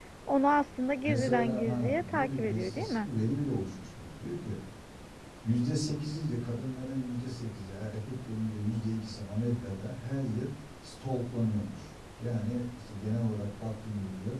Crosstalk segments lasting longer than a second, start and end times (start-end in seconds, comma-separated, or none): 1.0-3.1